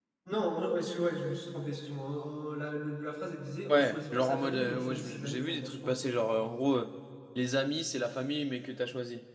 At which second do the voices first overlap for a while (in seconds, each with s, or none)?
3.7 s